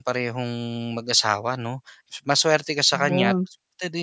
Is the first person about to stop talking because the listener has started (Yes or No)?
No